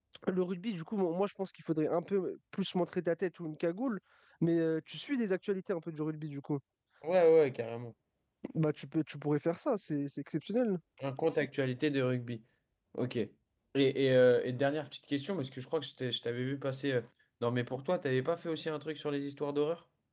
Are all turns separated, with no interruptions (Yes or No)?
Yes